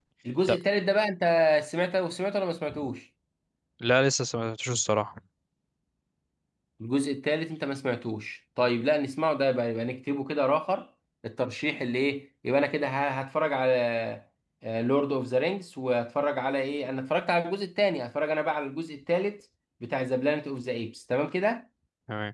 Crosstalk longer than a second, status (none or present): none